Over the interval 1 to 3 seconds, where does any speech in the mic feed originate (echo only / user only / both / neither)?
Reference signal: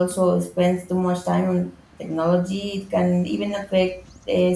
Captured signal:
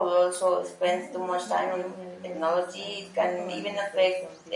both